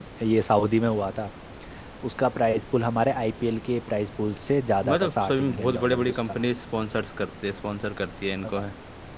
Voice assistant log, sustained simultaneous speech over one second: present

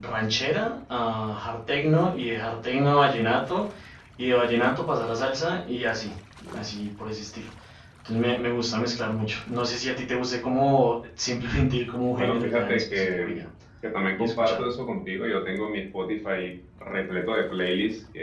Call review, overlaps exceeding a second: present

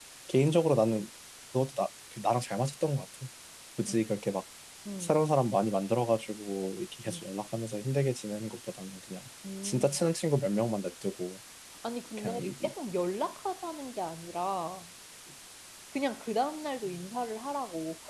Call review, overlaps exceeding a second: none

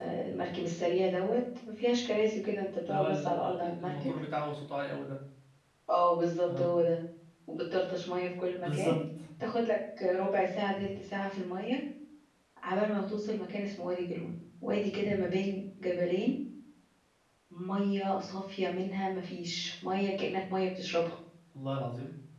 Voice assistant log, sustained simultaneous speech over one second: present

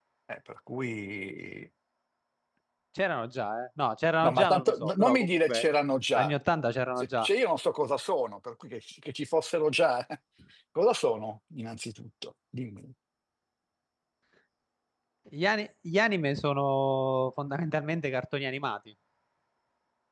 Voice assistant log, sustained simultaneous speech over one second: present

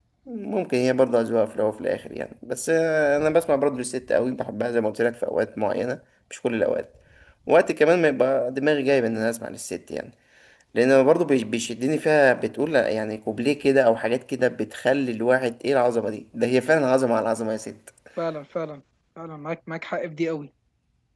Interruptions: none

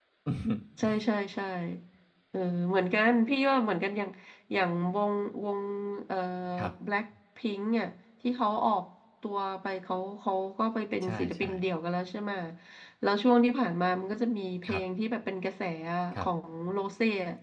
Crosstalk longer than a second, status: none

